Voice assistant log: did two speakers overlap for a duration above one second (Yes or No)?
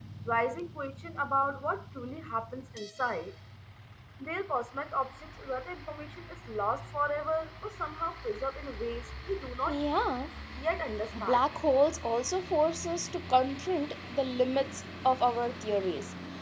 No